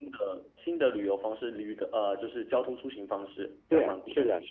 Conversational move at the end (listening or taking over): taking over